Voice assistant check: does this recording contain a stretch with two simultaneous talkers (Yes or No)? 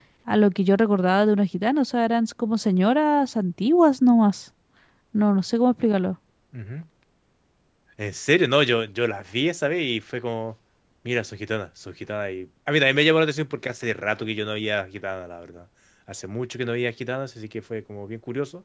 No